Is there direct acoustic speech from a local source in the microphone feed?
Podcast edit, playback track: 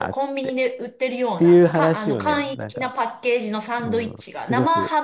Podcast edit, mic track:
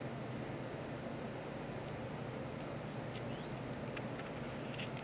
No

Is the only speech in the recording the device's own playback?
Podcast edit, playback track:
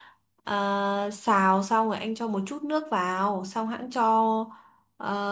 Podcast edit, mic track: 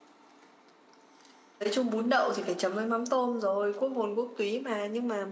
No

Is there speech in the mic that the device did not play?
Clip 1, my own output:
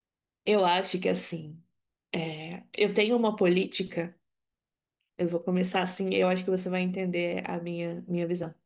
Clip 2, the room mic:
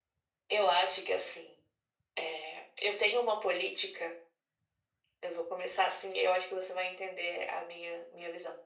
No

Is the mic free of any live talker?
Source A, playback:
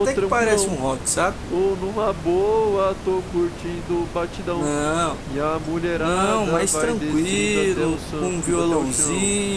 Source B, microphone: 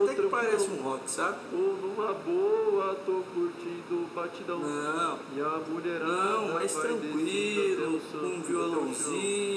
Yes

